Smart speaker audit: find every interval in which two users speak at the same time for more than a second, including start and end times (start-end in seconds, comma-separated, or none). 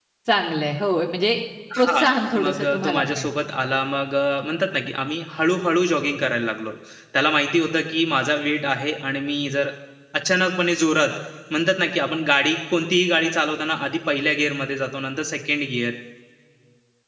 1.8-3.3